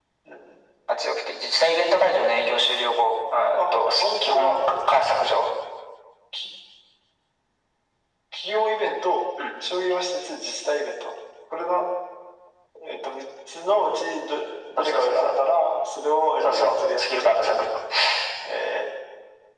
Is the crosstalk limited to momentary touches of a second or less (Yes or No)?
No